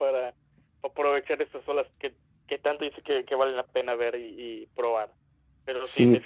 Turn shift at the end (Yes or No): No